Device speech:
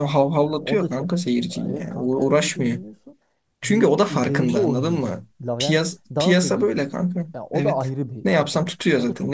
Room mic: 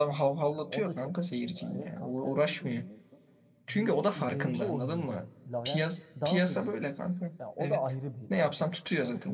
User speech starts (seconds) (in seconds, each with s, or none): none